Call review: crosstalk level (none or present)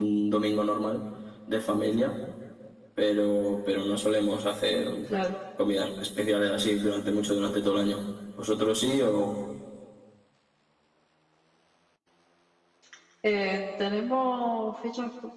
none